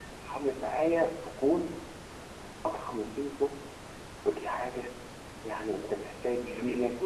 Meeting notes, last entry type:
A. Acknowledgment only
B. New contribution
B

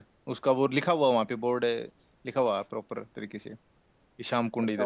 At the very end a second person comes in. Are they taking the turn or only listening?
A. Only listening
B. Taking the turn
B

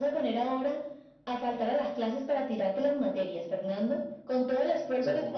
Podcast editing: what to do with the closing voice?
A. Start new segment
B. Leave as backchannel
B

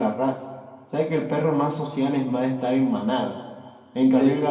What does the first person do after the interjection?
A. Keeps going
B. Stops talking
A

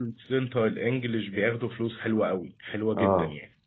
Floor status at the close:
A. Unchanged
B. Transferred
B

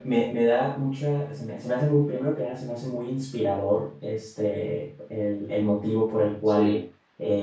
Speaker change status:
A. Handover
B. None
B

